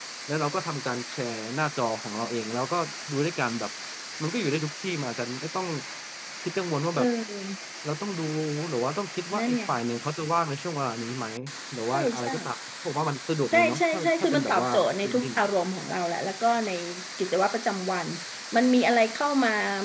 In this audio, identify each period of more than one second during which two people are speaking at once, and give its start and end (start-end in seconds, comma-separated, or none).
13.5-15.3